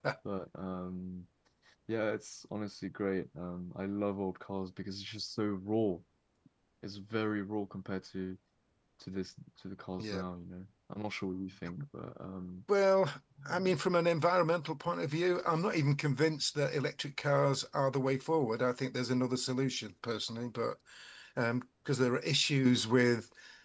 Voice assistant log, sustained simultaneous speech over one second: none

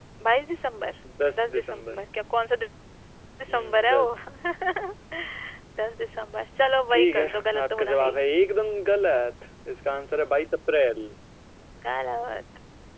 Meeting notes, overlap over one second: present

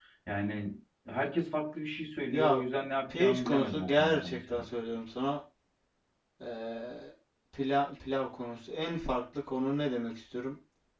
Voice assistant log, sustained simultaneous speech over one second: present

